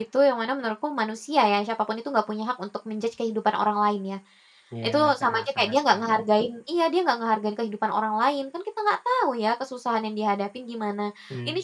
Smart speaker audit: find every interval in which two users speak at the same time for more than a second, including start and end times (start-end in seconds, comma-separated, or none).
4.8-6.1